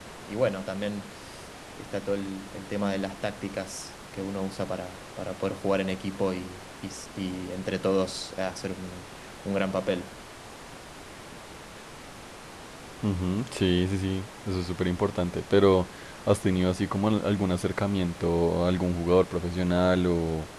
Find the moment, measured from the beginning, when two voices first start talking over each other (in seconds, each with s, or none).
none